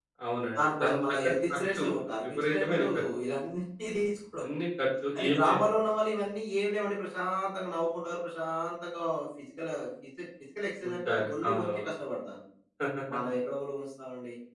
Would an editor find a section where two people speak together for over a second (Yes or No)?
Yes